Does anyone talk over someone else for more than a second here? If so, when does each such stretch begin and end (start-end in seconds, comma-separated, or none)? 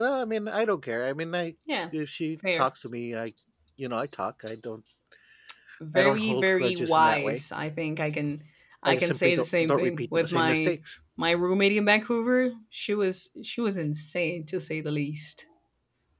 5.9-7.4, 8.9-10.8